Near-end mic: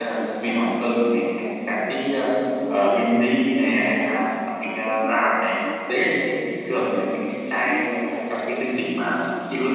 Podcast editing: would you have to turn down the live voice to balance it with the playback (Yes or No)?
Yes